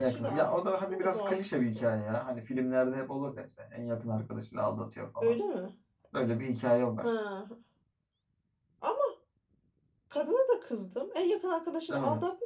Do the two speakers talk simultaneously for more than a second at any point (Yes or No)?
Yes